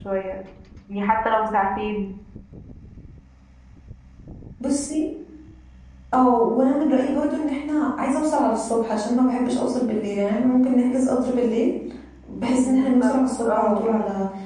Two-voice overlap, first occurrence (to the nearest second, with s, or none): 13 s